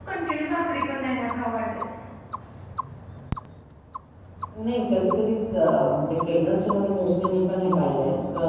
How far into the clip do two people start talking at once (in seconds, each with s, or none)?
none